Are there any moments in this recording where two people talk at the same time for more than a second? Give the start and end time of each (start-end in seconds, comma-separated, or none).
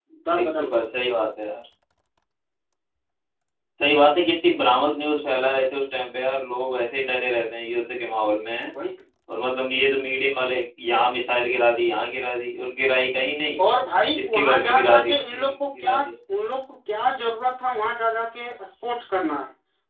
14.2-16.0